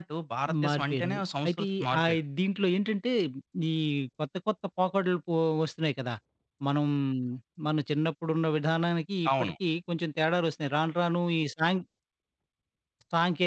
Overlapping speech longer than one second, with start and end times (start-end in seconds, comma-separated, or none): 0.7-2.2